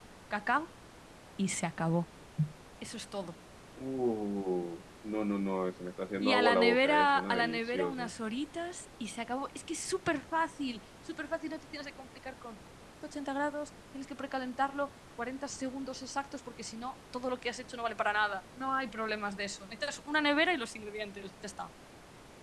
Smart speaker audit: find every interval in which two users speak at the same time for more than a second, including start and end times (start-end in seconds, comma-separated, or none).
6.2-8.1